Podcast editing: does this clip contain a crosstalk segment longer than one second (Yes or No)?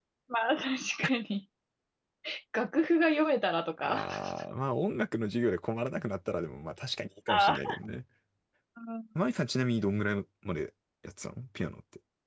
No